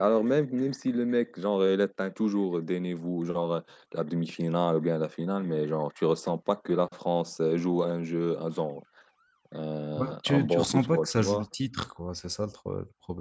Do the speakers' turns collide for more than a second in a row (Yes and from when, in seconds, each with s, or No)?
Yes, from 10.0 s